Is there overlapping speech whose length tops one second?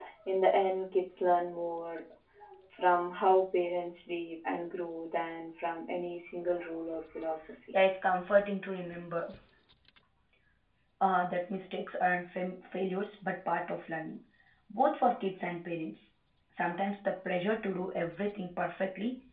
No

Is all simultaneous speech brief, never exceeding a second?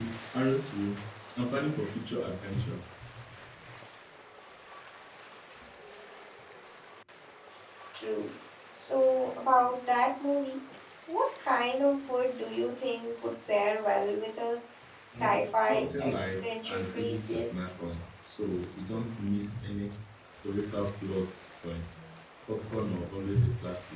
No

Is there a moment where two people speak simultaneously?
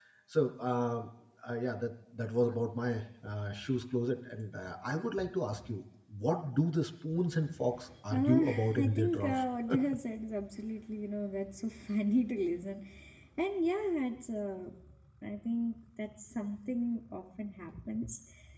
Yes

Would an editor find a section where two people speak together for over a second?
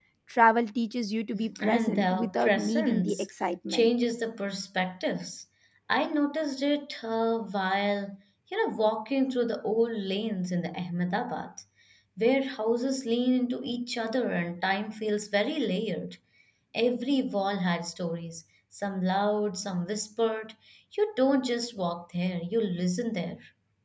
Yes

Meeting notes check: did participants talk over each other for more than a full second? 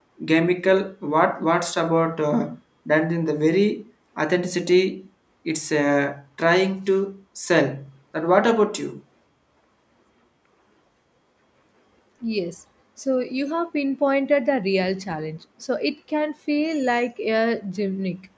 No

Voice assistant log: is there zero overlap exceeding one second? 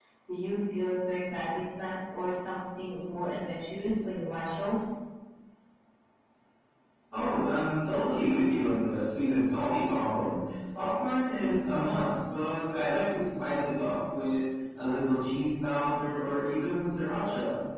Yes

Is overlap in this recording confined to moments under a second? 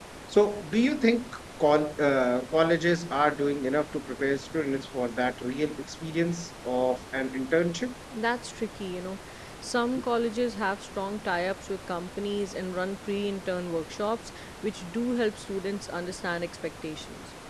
Yes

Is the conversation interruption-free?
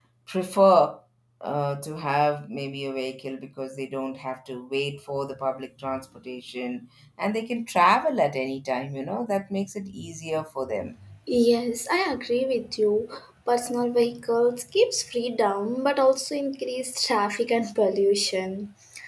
Yes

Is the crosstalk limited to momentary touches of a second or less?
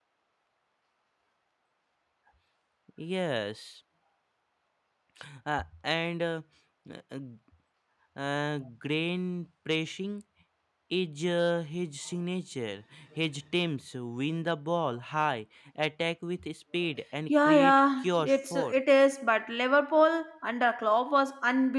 No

